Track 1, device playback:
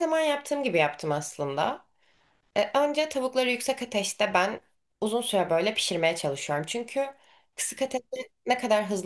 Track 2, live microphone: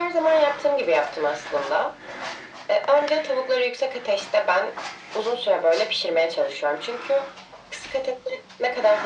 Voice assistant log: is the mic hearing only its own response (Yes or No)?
Yes